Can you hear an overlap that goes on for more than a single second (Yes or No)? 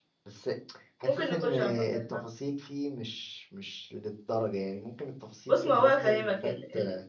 Yes